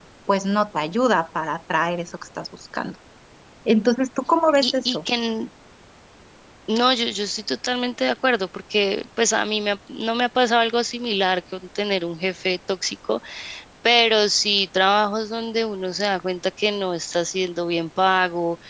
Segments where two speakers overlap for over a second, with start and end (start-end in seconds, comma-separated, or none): none